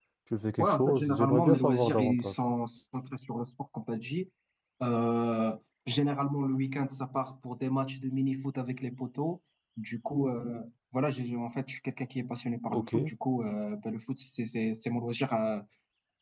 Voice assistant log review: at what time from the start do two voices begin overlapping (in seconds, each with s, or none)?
0.6 s